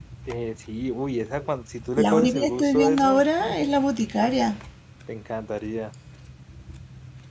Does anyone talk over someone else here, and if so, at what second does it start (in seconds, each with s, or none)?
2.0 s